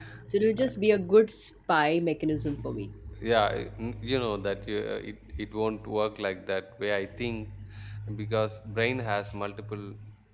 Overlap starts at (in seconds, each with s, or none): none